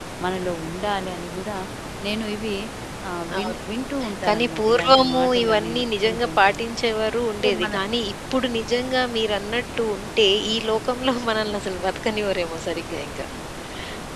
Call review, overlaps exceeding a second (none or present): present